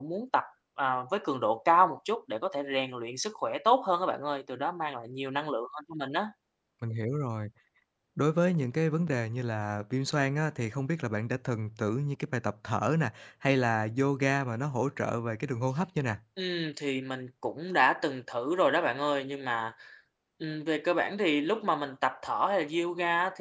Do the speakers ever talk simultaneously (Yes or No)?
No